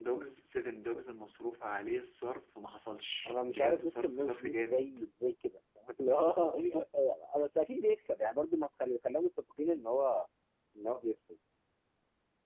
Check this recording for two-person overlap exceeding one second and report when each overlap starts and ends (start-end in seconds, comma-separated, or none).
3.2-5.0